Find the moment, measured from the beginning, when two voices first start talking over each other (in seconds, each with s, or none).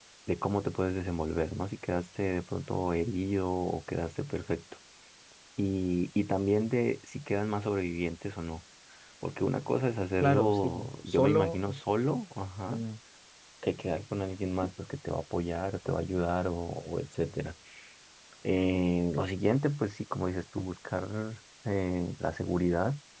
10.2 s